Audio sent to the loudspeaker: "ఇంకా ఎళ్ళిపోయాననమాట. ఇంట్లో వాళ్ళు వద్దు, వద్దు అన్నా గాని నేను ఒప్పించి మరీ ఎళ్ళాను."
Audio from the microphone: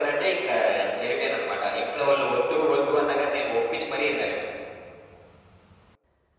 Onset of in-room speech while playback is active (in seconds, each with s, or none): none